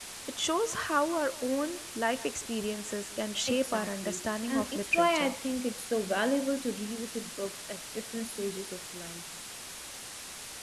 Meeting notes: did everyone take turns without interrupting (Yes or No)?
No